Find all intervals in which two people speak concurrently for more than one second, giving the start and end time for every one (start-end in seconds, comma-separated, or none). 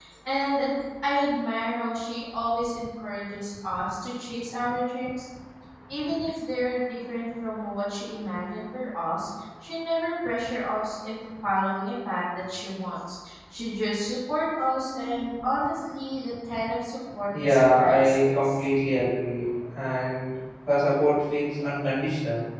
17.4-18.6